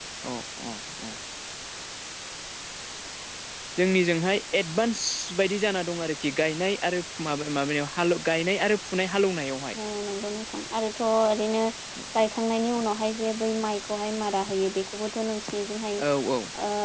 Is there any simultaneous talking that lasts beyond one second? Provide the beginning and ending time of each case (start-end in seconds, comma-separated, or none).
none